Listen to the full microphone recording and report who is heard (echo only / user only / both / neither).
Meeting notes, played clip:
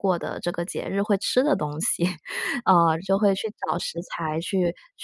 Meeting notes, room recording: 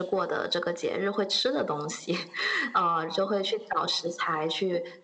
echo only